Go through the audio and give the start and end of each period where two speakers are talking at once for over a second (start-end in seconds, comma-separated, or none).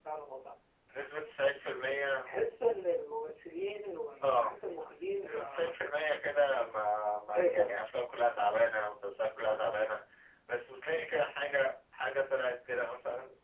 none